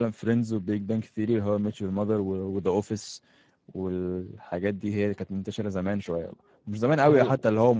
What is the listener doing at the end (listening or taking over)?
listening